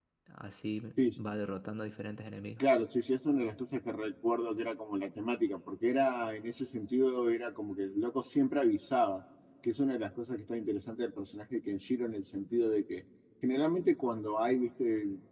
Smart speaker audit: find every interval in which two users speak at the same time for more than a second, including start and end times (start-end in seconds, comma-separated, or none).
none